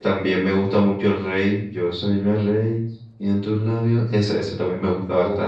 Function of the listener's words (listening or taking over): listening